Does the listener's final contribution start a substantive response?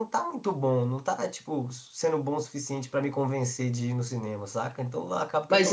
Yes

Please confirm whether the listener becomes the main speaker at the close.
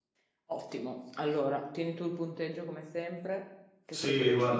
Yes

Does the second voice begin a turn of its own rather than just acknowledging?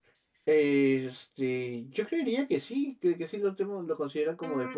Yes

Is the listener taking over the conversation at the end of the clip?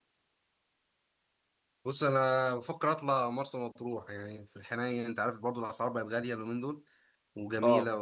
No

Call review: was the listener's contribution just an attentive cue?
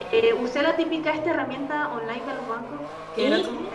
Yes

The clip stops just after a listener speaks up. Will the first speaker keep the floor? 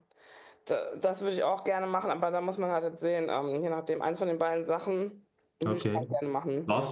No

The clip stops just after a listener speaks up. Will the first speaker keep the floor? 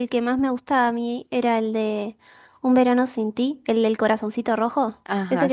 No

